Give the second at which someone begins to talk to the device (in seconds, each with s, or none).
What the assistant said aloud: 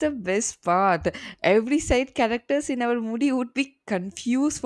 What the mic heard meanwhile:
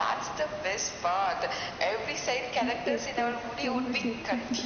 2.6 s